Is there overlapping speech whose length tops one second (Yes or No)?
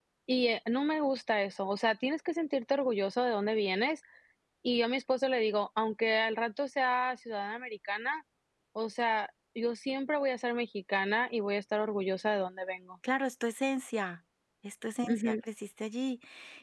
No